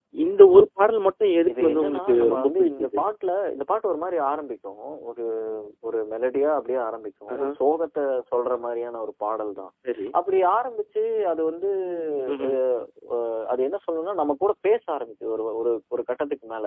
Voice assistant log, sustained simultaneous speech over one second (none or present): present